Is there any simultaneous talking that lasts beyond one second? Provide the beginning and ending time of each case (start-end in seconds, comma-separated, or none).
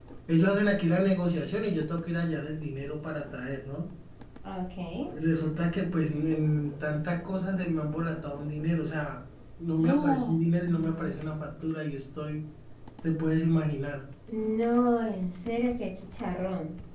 9.8-11.1